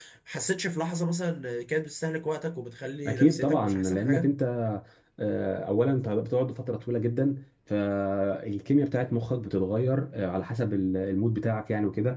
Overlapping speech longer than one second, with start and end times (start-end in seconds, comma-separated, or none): 3.1-4.3